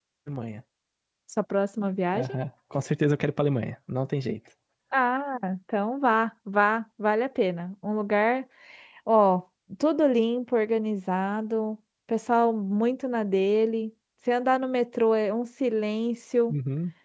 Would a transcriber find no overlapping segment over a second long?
Yes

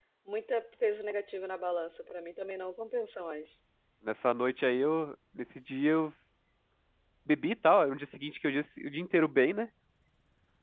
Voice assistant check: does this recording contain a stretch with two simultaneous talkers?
No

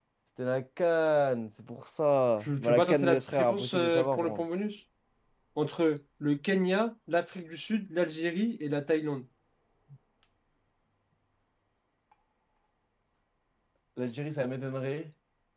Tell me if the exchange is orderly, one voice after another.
No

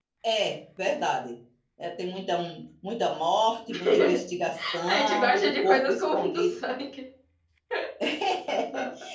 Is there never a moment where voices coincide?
No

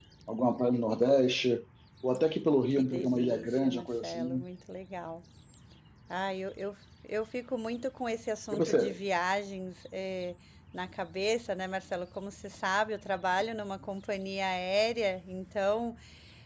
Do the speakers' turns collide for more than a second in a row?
Yes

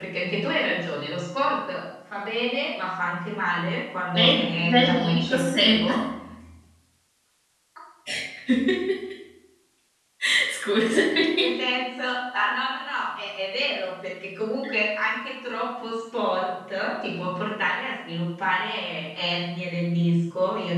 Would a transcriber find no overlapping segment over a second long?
No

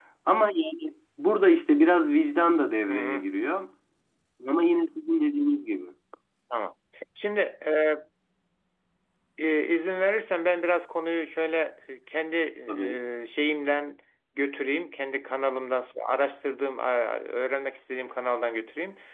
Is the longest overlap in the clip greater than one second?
No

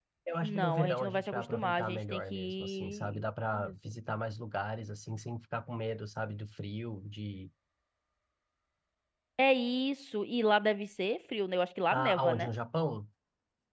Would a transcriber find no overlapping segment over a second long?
No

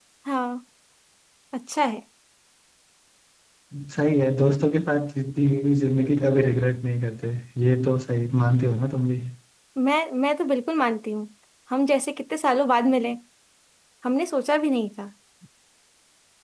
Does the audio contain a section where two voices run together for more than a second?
No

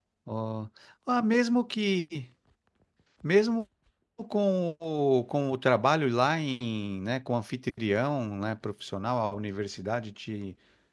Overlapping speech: No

